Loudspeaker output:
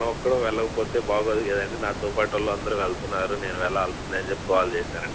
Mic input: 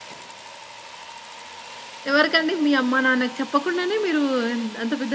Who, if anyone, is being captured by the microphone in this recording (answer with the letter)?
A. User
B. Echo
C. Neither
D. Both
A